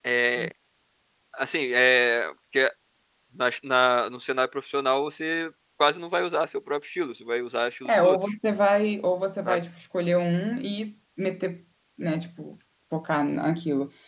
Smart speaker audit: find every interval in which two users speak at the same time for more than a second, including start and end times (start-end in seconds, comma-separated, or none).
none